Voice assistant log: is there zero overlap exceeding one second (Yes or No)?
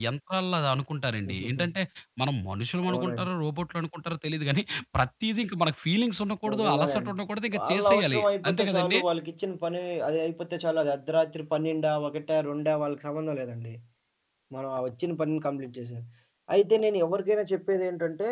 No